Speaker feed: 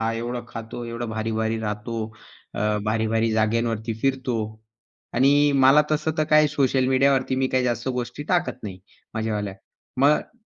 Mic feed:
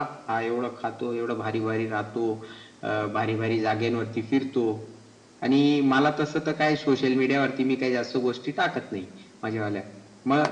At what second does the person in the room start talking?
none

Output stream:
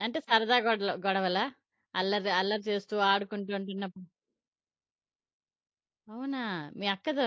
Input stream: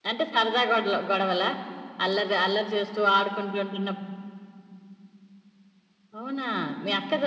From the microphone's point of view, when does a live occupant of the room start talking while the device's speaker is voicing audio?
none

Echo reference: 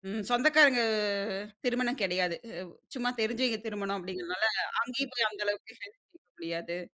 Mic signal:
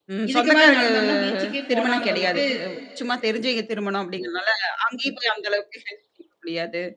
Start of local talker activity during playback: 0.3 s

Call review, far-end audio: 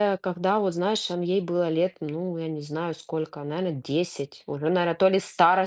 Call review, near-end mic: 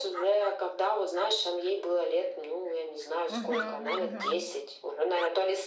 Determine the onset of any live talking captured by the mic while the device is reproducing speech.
3.3 s

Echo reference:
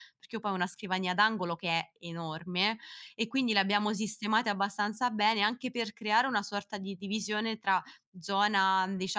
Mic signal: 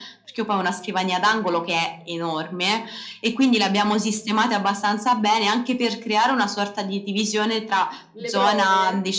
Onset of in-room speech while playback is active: 8.1 s

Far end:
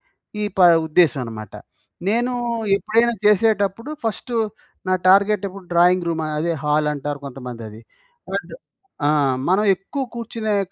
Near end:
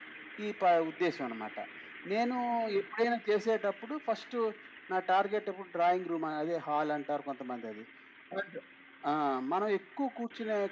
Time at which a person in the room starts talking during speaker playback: none

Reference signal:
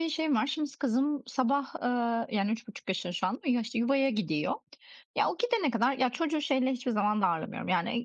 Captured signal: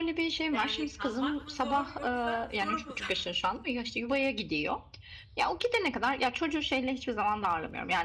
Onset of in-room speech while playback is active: 0.5 s

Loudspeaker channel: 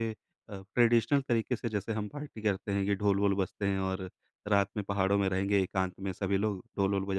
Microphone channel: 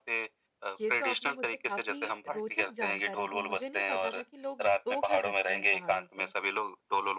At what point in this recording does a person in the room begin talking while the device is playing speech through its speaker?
0.8 s

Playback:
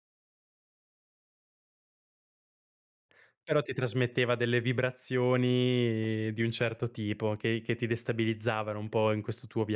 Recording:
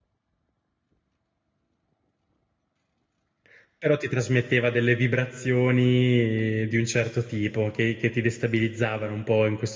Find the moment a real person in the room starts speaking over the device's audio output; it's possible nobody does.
none

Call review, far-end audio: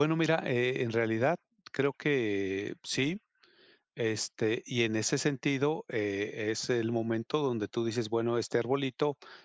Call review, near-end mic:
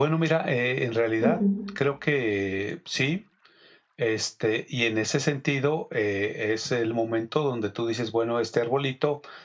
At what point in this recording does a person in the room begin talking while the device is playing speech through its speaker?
1.2 s

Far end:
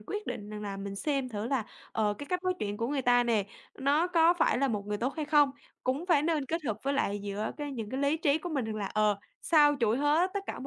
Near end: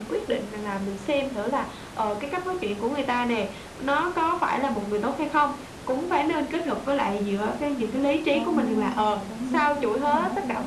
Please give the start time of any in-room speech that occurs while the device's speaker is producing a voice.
8.3 s

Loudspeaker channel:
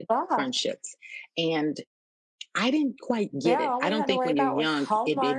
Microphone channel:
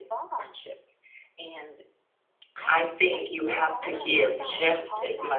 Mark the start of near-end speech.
2.7 s

